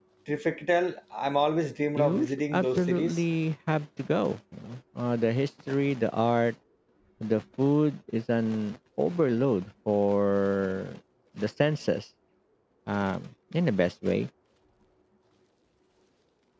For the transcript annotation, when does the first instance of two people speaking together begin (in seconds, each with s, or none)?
2.0 s